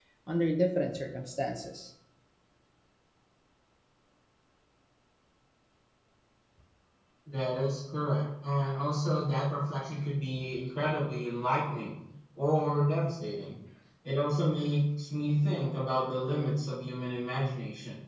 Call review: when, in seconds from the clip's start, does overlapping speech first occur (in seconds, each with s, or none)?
none